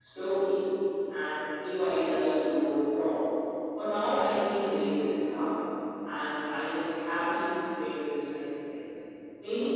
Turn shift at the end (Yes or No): No